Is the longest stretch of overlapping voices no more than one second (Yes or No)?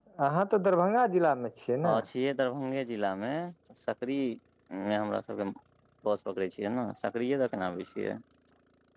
Yes